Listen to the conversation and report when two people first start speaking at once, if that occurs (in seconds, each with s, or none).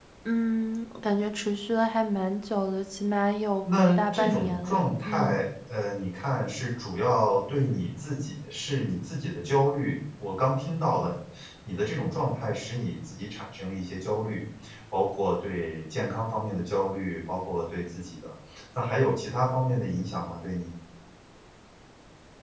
3.6 s